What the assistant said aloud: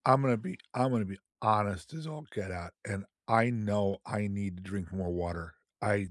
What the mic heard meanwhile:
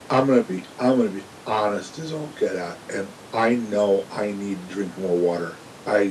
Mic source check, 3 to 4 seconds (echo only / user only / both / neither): echo only